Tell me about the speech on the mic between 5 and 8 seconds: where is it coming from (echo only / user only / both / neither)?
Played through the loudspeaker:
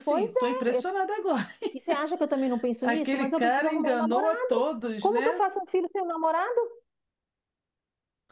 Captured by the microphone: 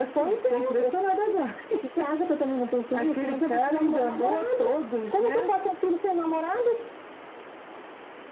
echo only